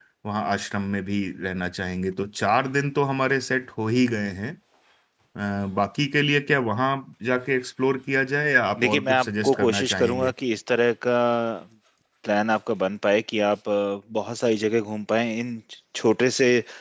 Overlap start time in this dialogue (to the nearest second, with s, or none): 9 s